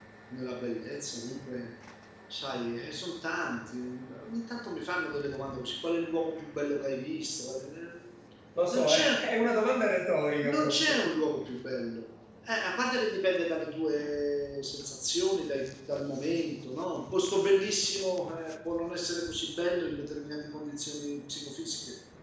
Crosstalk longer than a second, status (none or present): none